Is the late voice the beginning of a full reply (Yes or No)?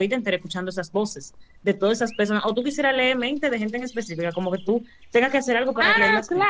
Yes